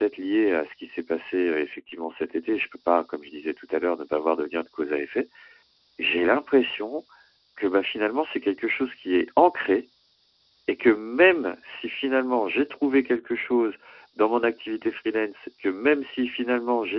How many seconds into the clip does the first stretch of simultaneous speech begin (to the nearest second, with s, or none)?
none